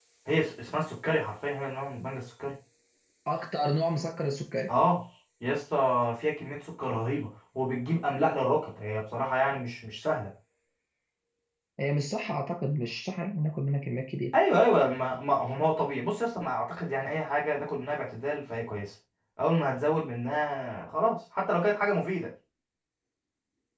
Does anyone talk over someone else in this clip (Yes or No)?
No